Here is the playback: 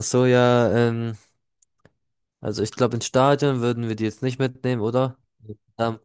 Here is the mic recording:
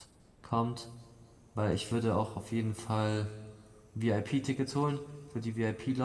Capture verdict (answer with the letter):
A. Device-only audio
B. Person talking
B